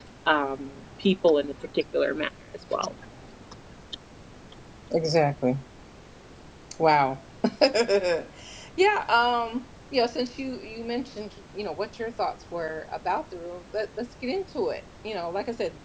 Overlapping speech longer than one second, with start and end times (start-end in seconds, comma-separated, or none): none